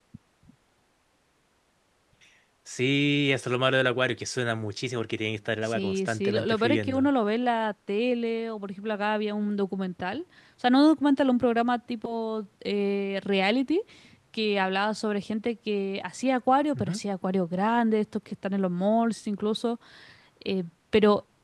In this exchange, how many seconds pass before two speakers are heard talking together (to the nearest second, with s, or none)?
6 s